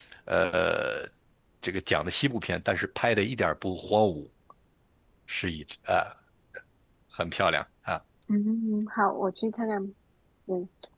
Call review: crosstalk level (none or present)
none